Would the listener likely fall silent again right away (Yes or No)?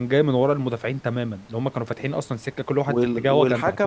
No